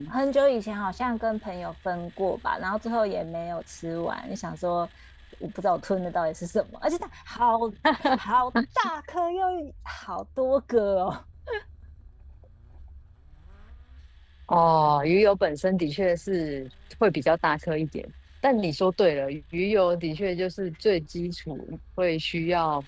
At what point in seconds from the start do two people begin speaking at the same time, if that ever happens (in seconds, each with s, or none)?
none